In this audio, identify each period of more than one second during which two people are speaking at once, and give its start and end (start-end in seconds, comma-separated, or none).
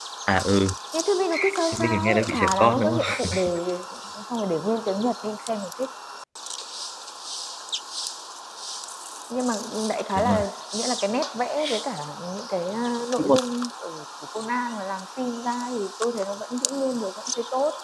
1.8-3.3